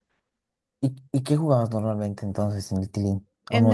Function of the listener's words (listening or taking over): taking over